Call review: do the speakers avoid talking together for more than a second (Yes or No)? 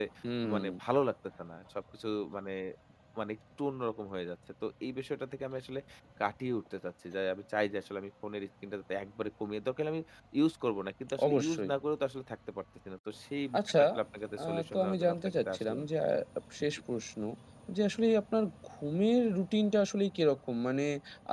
No